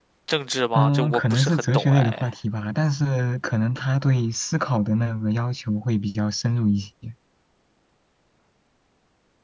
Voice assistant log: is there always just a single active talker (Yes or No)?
No